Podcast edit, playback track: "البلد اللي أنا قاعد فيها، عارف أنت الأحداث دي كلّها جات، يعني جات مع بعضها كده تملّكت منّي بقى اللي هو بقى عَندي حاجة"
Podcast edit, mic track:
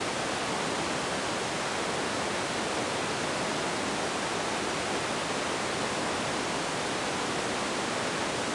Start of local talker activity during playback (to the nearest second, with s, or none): none